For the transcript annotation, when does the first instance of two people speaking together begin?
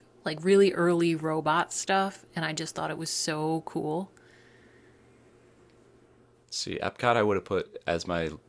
none

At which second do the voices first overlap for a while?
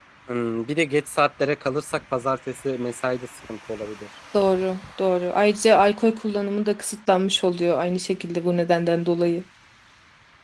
none

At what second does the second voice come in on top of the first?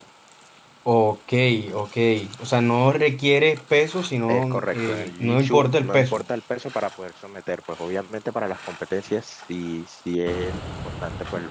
4.3 s

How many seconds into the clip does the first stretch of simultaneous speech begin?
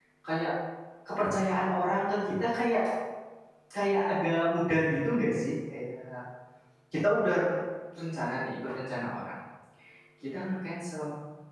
none

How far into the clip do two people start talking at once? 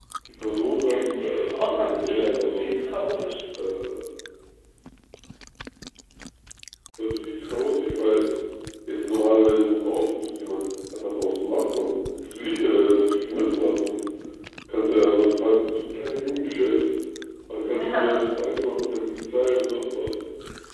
0.9 s

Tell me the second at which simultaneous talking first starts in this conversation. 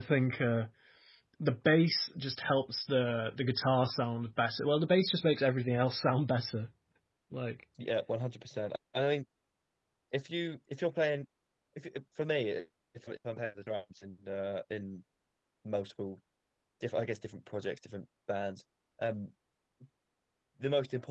none

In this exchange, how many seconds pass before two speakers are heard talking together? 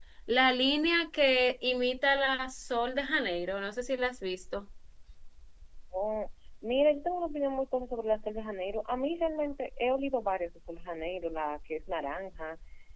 none

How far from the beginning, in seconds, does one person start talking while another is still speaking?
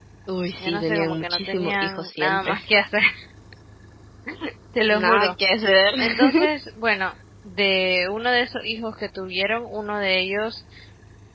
0.6 s

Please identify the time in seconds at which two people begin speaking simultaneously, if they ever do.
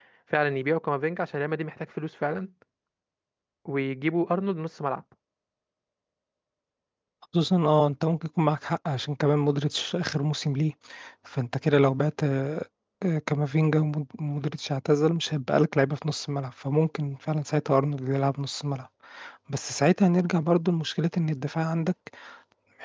none

